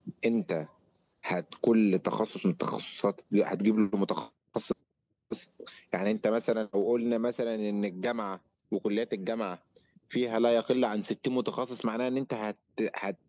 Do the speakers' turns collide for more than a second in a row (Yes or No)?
No